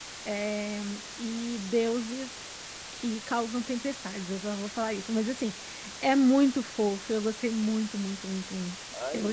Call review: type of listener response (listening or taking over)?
taking over